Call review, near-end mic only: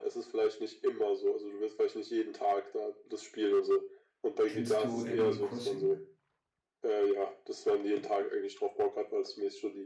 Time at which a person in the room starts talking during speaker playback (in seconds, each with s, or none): 4.5 s